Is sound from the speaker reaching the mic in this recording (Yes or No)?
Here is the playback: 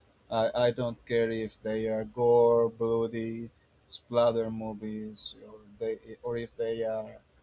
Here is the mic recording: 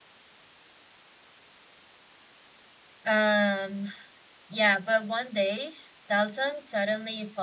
No